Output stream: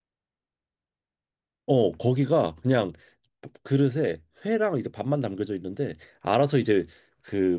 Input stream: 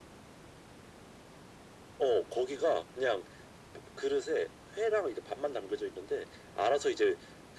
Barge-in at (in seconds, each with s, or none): none